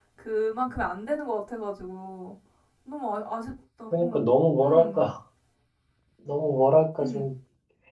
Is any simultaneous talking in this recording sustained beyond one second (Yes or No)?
No